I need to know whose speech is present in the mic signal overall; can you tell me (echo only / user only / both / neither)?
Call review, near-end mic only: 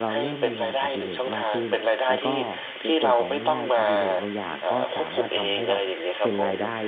both